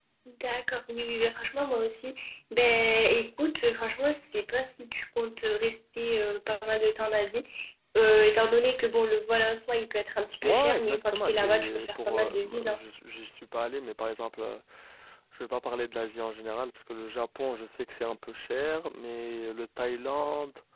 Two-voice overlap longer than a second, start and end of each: 10.4-12.8

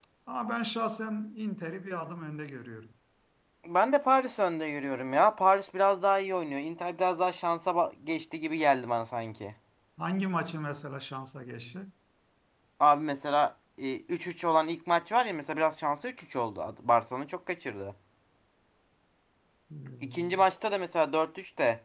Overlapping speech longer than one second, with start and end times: none

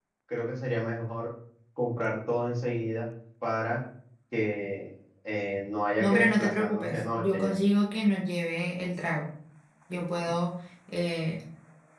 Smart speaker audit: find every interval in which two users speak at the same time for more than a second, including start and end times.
6.0-7.6

